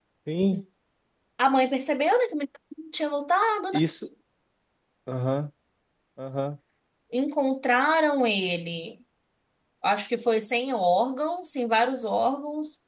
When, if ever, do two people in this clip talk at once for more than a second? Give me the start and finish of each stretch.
none

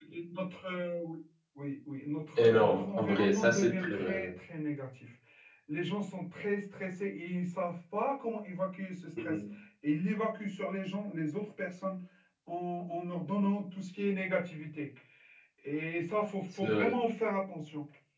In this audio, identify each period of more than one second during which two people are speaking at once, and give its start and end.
2.4-4.2

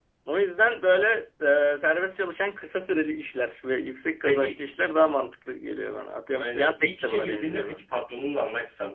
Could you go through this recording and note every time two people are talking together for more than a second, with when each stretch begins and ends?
6.3-7.8

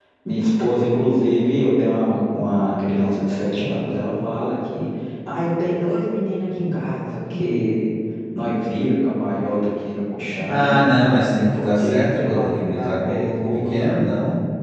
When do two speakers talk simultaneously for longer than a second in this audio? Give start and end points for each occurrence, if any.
10.5-13.9

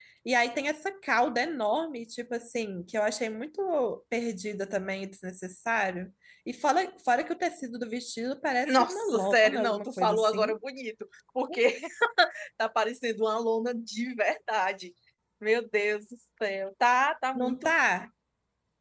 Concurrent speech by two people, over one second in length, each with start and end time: 8.7-10.4

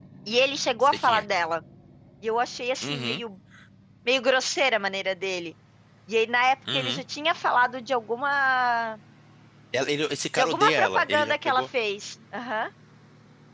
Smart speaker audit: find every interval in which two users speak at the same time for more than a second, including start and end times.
10.4-11.6

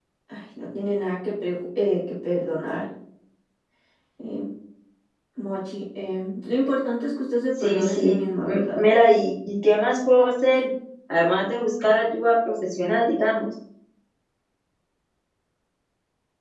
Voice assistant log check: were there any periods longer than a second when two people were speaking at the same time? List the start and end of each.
7.6-8.8

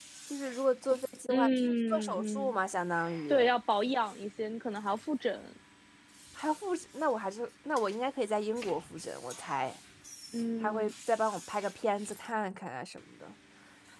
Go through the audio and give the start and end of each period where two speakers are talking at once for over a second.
1.3-2.5

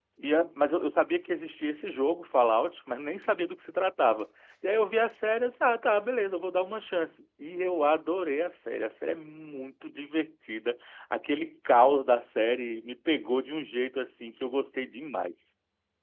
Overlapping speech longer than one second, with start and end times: none

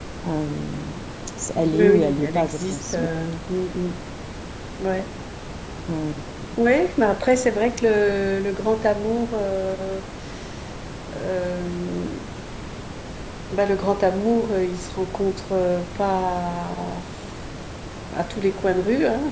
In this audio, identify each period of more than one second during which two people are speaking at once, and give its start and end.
1.7-3.1

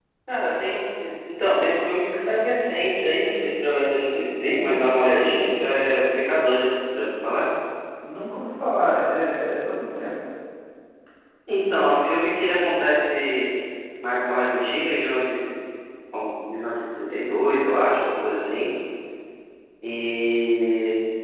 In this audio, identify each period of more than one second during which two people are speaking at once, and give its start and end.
none

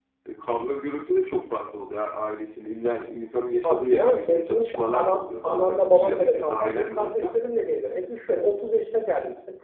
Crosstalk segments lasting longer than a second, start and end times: 3.6-7.3

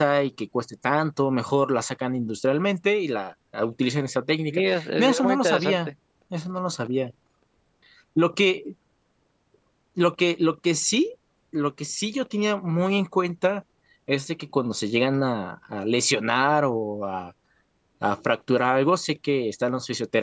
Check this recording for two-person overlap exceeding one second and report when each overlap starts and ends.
4.5-5.9

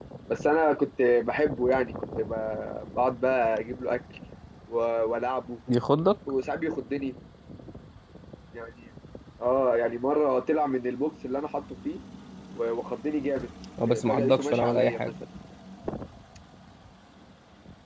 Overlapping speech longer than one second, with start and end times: 13.9-15.1

